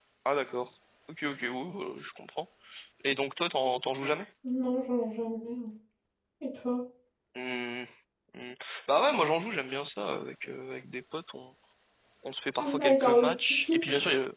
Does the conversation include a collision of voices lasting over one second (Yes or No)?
Yes